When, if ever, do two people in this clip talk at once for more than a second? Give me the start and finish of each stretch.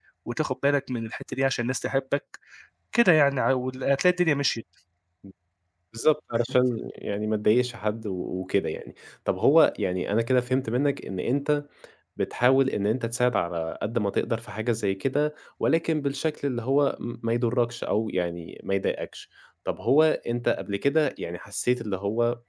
none

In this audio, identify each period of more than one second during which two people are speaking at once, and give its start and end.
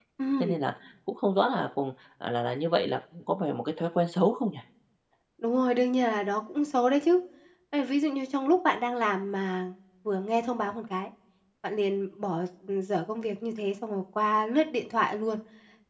none

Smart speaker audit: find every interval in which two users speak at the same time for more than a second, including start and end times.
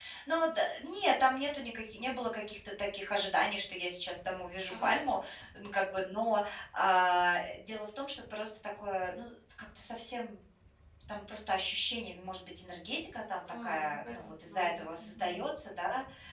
13.6-15.4

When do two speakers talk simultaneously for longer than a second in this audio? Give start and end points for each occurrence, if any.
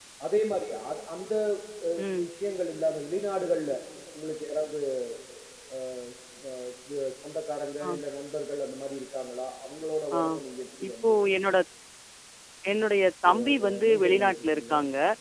13.3-14.7

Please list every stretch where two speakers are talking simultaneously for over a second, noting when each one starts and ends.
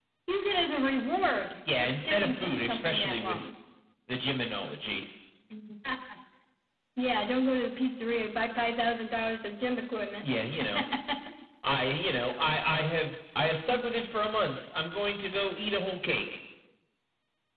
1.8-3.5

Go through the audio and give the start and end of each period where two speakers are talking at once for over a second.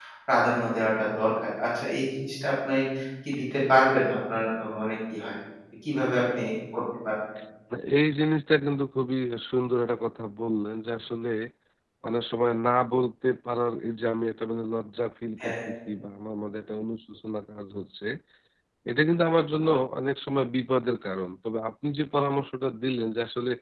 none

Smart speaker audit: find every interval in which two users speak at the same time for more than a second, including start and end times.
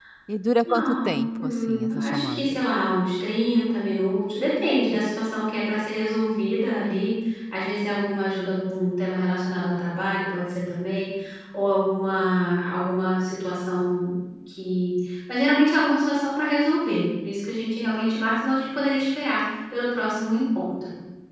0.7-2.6

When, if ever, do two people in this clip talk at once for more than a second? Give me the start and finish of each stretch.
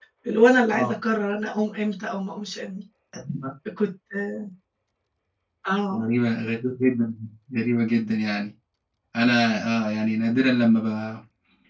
none

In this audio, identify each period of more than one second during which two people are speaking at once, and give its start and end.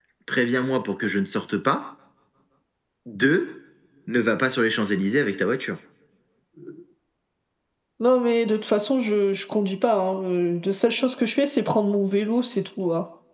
none

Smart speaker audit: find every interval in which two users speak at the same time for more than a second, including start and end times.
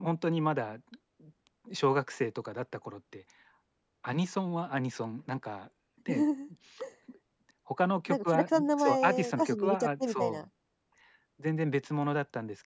8.1-10.4

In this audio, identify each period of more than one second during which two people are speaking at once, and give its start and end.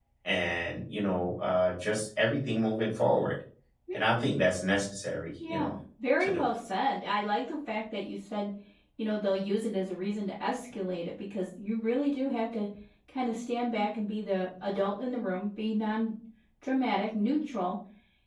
none

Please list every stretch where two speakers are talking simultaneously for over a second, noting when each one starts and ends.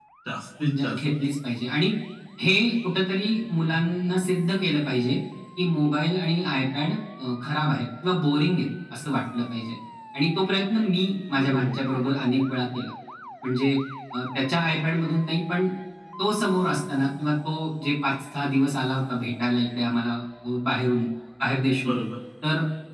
none

